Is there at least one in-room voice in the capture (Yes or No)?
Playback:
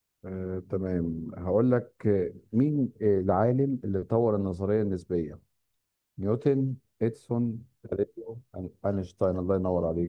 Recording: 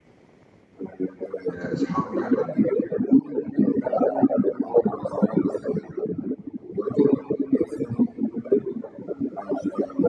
Yes